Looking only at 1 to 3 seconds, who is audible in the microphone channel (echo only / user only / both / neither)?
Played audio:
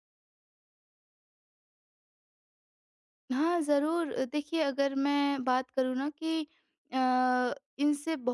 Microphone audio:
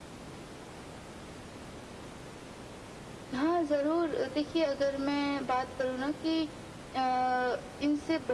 neither